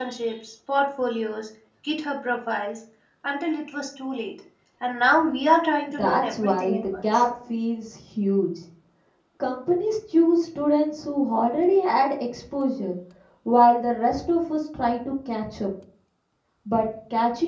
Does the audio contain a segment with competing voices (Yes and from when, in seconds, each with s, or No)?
Yes, from 5.9 s